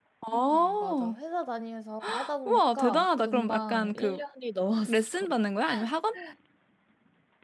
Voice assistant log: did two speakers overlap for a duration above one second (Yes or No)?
Yes